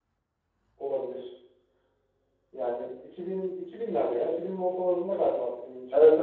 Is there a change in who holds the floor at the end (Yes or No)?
Yes